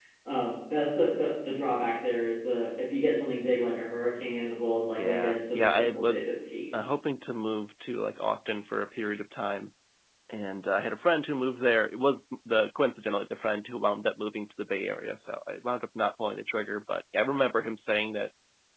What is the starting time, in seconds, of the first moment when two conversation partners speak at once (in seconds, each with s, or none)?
5.0 s